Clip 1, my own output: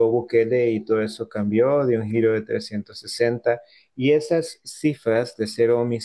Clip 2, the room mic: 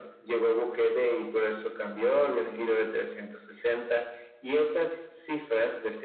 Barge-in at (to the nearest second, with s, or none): none